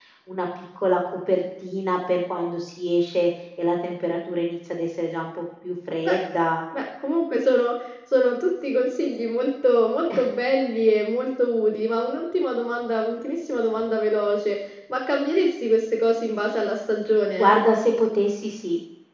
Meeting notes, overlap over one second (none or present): none